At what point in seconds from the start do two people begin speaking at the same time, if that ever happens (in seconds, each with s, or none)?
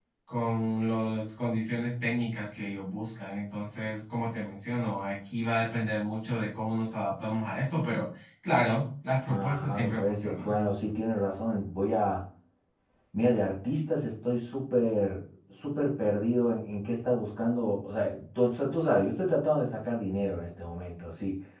9.3 s